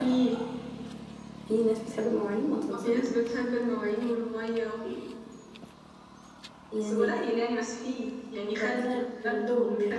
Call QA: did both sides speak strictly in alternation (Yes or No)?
No